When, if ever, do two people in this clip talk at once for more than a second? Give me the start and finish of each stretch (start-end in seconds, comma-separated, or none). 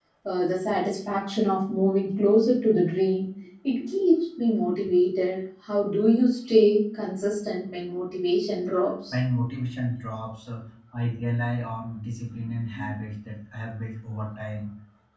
none